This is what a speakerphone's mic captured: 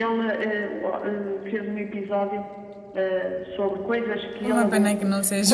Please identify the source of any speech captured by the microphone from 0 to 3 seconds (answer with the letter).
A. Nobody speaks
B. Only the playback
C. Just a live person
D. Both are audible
B